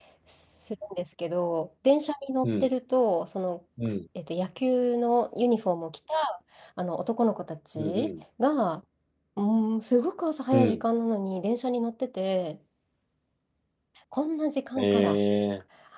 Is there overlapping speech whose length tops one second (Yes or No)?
No